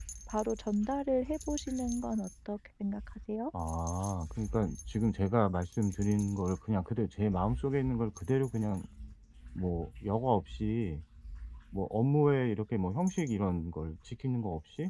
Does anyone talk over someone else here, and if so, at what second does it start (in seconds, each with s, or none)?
none